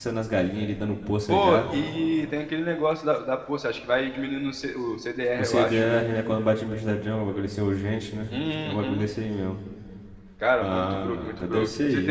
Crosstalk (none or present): present